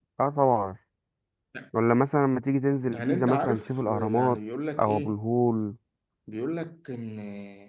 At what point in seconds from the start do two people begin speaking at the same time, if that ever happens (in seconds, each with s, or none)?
2.9 s